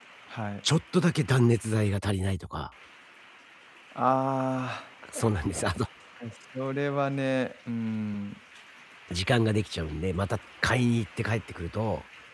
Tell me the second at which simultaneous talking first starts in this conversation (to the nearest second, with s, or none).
none